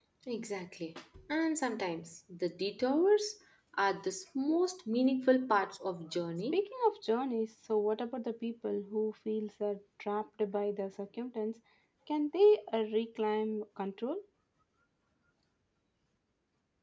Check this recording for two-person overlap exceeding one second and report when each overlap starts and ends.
none

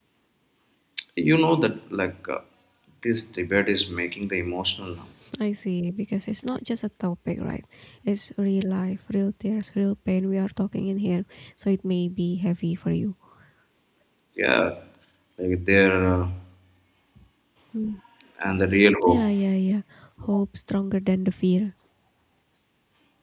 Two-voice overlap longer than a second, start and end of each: none

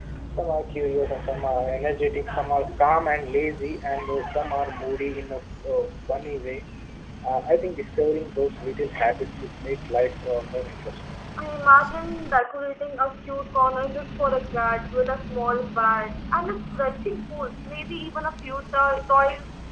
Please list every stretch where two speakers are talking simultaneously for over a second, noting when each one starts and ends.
none

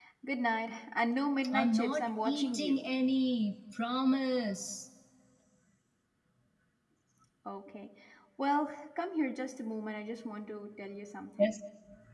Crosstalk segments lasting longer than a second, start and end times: 1.5-2.8

